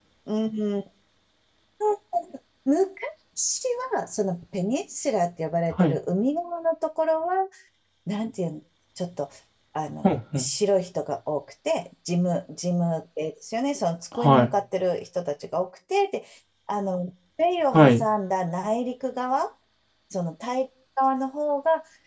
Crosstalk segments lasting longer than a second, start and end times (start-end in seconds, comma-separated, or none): none